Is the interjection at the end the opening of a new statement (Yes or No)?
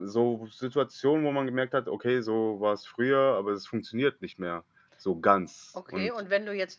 Yes